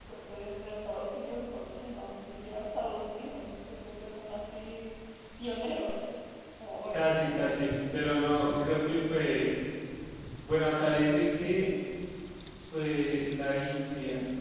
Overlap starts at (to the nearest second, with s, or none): none